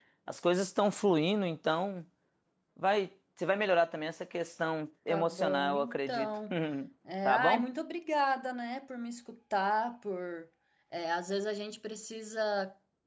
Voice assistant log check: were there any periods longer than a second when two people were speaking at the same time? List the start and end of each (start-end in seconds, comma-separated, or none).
5.1-6.4